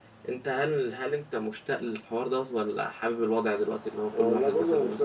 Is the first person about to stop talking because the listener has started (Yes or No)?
Yes